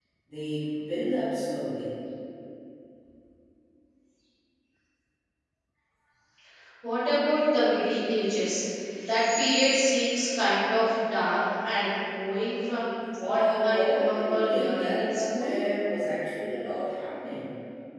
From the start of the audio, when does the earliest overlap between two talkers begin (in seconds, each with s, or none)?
13.2 s